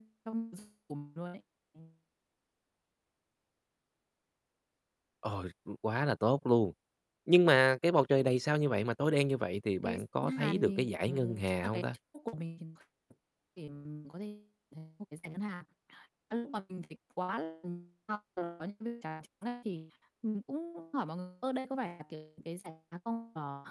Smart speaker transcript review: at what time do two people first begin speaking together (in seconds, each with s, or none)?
9.8 s